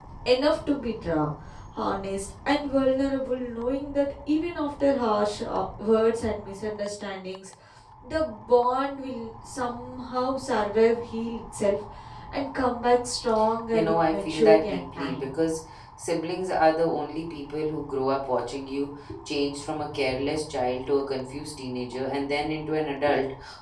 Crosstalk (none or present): present